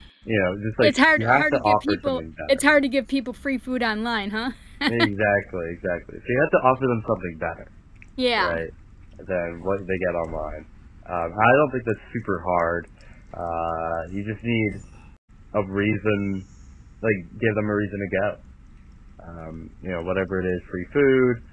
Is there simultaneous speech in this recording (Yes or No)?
Yes